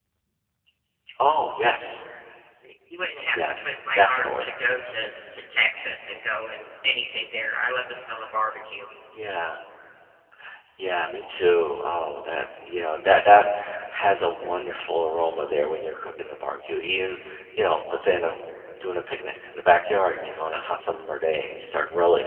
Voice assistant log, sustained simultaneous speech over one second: present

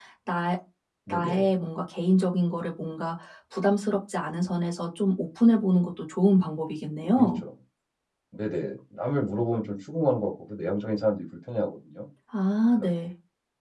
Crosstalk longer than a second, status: none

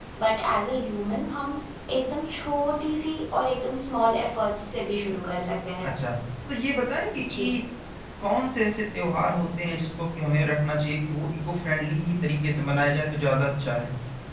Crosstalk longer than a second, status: none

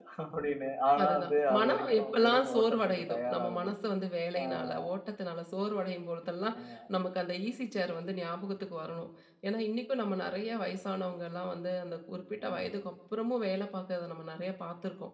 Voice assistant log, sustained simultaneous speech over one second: present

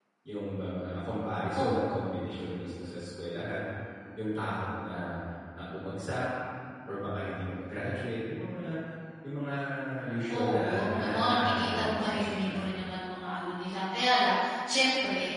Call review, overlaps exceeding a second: present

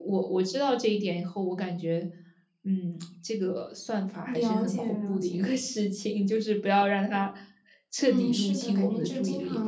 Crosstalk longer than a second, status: present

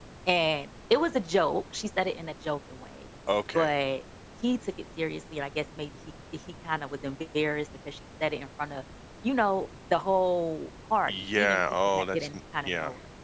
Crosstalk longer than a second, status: present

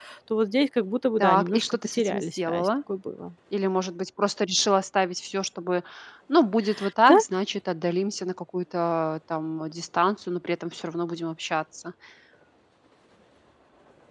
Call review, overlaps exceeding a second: present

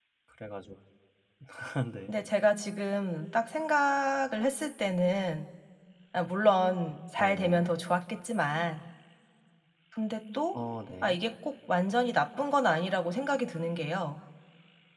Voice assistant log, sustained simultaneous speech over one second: none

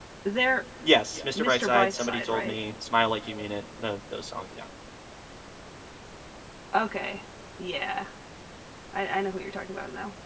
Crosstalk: present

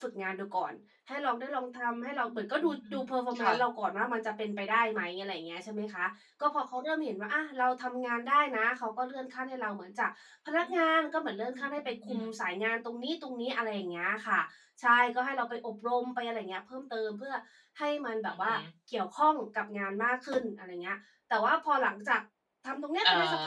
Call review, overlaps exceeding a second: none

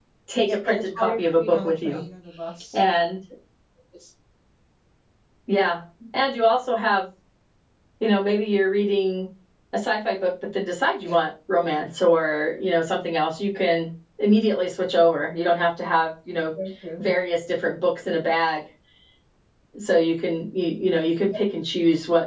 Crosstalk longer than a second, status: present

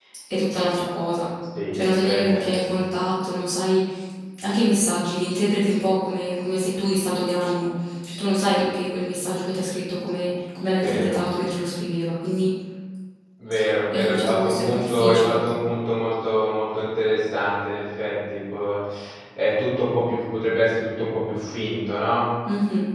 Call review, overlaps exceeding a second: present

